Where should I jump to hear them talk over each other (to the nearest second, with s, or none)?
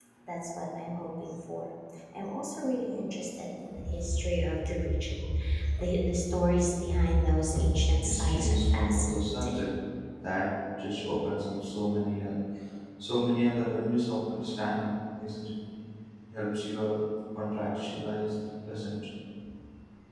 8 s